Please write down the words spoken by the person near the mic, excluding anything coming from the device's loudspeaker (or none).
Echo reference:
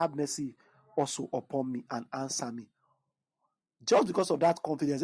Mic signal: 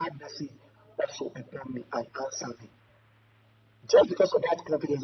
none